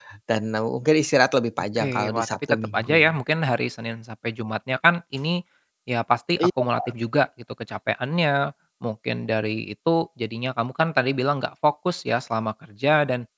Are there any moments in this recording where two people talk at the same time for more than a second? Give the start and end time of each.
1.8-3.0

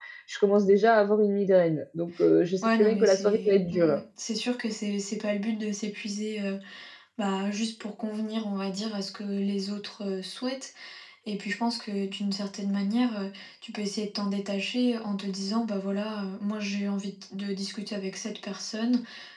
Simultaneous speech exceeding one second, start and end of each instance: 2.6-4.0

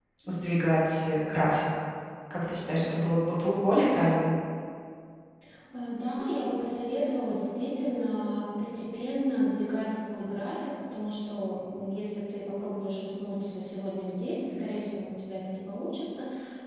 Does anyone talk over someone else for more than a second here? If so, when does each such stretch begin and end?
none

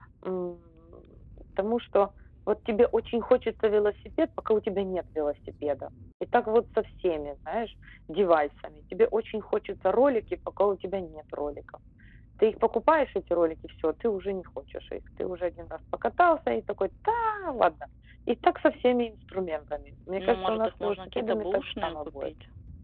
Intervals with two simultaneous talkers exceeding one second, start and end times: 20.2-22.3

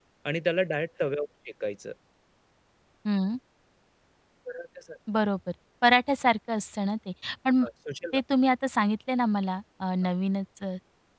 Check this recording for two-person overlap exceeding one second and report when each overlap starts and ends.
none

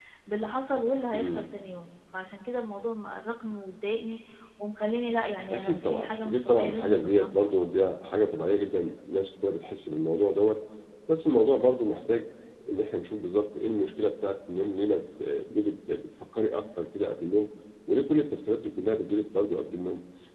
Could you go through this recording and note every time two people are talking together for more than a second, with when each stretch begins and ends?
5.5-7.5

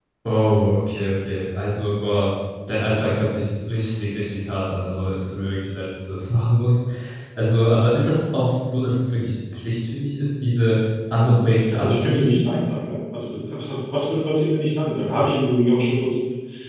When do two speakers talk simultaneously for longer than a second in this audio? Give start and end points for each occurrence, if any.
11.2-12.4

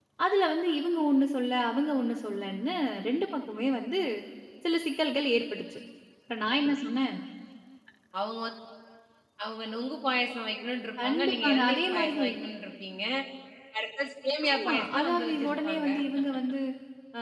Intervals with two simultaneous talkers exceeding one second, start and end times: 11.0-12.3, 14.5-15.8

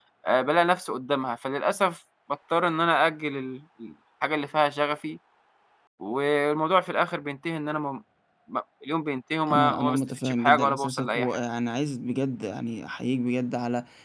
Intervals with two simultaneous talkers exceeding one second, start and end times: 9.5-11.4

